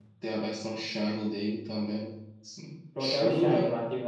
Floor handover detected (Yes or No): Yes